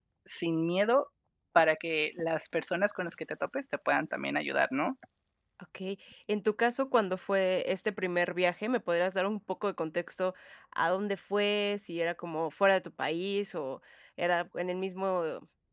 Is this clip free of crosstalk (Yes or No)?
Yes